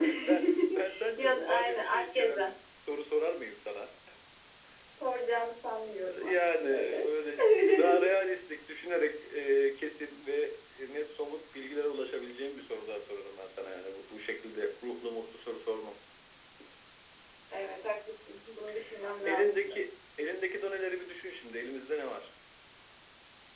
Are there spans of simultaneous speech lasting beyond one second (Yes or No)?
Yes